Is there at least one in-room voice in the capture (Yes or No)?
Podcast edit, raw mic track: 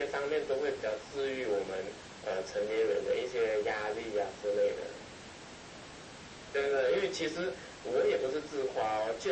No